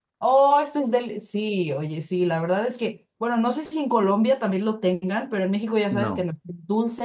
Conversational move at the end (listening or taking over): listening